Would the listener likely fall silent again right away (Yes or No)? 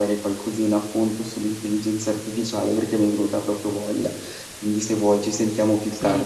No